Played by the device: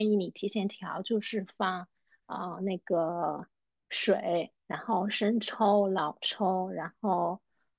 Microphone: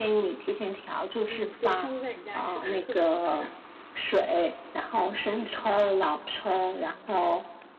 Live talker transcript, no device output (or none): 嗯，对，上次在你家吃，感觉特别好吃。